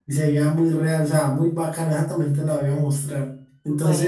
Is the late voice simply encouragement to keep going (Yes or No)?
Yes